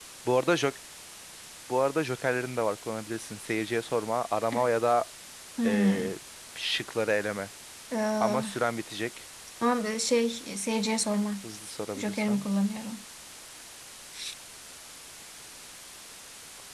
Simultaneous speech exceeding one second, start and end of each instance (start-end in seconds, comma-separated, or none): none